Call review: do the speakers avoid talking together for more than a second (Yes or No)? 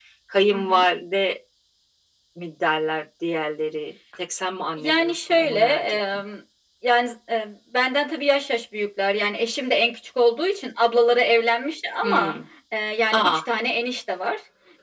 No